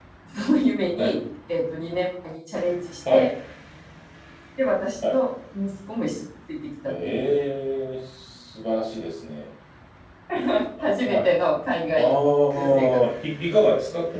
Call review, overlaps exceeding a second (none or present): none